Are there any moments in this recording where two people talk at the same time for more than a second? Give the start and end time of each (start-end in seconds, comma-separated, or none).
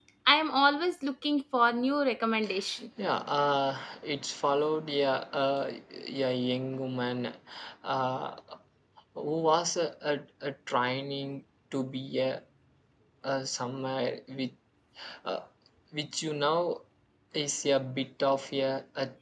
none